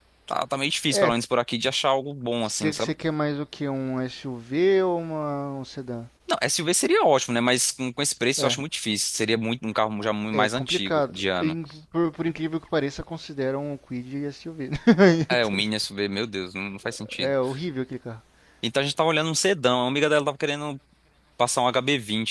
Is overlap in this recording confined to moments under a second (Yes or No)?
No